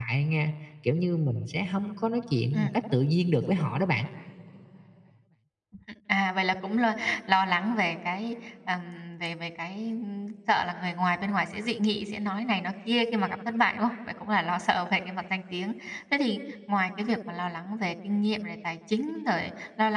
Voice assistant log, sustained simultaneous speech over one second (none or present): none